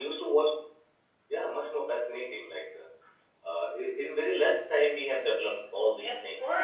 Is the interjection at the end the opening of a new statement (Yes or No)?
Yes